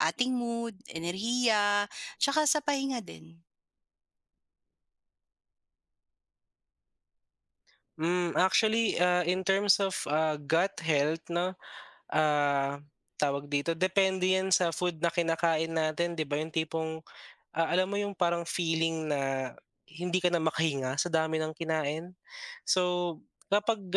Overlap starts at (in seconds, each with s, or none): none